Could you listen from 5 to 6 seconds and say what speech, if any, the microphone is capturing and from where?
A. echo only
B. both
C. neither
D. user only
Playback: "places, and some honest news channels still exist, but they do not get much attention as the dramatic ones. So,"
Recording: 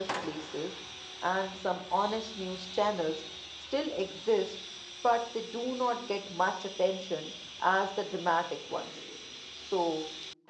A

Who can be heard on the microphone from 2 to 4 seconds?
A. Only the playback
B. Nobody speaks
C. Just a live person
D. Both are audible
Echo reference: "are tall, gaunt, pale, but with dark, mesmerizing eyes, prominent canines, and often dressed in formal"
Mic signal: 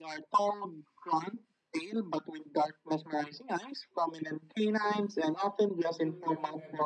A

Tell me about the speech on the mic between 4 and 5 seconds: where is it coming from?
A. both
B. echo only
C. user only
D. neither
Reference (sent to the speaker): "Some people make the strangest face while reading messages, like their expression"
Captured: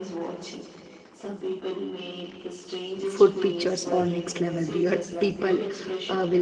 A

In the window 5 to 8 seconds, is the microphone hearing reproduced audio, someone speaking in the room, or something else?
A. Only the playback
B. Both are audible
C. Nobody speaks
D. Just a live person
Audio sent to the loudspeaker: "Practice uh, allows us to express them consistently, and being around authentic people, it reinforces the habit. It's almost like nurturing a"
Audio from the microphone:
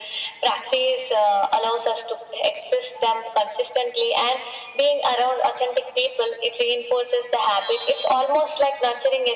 A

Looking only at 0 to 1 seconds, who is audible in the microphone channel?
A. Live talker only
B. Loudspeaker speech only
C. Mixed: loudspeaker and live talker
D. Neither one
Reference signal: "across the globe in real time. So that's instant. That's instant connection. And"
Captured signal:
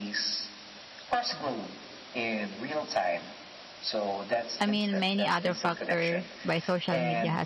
B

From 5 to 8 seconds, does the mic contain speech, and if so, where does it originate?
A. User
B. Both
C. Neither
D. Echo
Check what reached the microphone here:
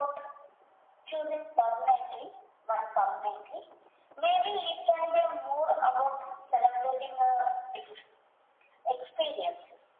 D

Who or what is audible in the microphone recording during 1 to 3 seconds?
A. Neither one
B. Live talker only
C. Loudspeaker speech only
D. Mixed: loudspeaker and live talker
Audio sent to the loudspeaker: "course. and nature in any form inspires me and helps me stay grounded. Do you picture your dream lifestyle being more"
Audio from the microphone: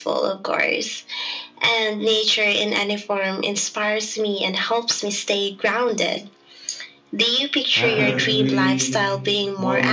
C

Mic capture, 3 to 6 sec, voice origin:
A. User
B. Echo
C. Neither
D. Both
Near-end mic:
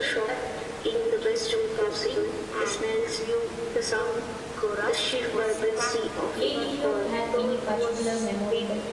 B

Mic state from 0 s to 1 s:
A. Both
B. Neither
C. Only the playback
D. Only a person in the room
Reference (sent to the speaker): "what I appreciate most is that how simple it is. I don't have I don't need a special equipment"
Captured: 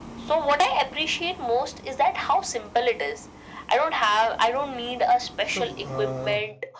C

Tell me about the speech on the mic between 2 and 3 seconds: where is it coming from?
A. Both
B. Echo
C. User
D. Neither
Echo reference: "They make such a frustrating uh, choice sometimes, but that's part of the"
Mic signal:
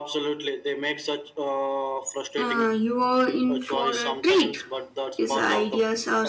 A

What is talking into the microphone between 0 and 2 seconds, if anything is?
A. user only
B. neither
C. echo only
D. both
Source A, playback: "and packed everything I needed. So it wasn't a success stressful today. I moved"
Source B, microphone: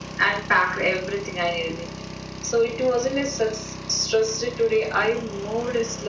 C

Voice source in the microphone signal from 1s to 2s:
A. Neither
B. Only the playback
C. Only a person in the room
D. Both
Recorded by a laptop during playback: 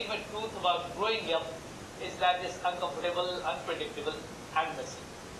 B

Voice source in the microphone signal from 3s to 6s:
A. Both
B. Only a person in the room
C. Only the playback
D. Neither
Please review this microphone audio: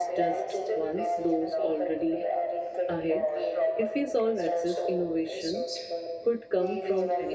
A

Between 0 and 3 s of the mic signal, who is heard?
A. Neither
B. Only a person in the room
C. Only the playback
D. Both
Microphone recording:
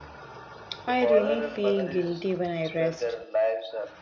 D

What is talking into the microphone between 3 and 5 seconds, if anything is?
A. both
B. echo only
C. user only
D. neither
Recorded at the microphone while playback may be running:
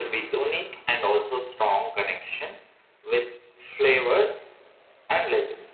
B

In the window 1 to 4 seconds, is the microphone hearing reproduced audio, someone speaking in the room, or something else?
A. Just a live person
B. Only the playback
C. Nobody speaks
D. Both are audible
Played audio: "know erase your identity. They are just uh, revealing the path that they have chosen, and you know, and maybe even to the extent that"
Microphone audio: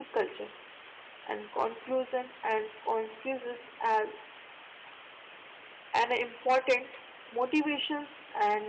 A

